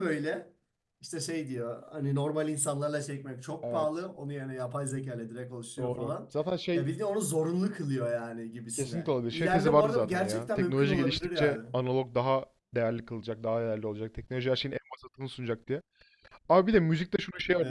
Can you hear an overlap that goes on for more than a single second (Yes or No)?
Yes